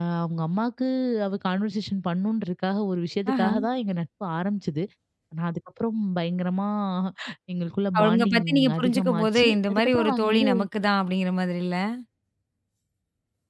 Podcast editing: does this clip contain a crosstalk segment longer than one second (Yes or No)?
Yes